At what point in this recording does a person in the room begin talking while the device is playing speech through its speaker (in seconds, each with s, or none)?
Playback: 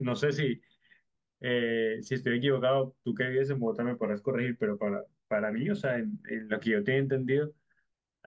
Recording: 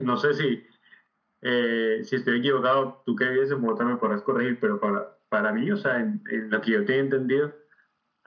none